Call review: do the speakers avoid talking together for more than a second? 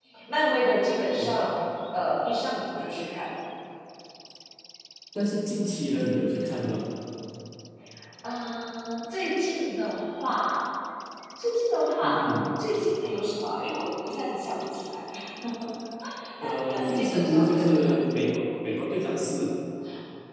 No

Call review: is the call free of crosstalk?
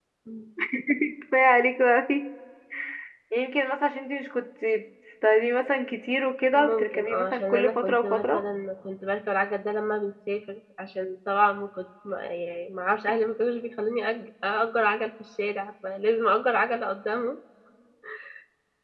No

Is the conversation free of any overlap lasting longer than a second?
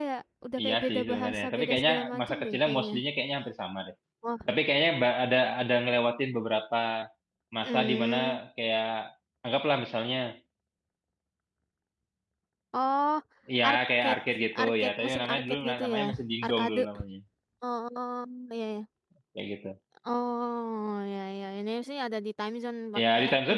No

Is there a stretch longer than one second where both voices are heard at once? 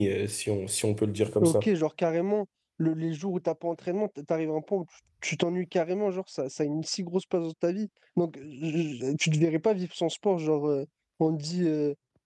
No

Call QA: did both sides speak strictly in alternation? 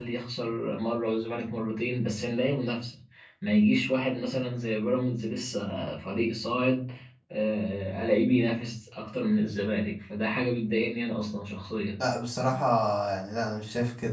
Yes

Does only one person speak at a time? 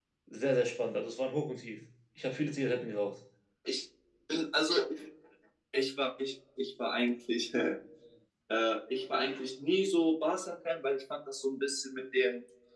Yes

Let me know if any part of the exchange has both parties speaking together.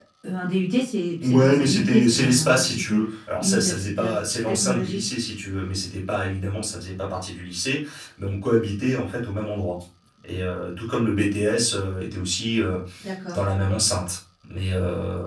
Yes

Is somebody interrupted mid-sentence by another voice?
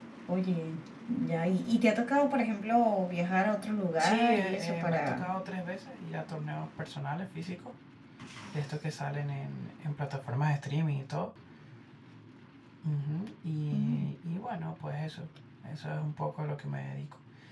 Yes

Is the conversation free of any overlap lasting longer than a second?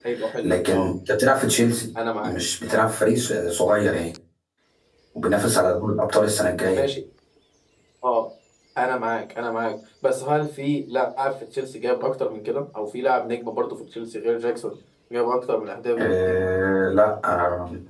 Yes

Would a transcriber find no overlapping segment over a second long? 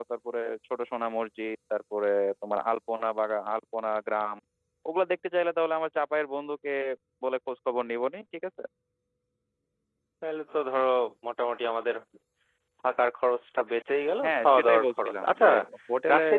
No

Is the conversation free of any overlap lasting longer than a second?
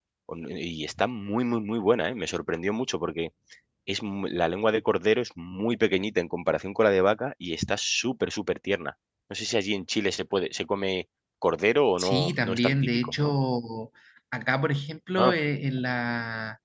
No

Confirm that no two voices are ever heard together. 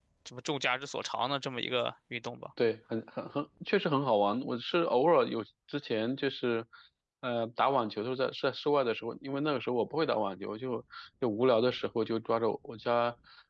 Yes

